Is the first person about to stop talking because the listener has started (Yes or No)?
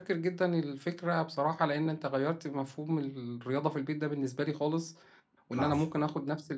No